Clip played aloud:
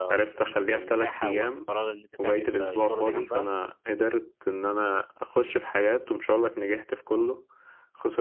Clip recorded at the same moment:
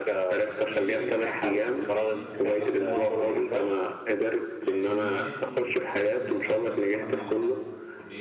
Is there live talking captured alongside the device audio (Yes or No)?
Yes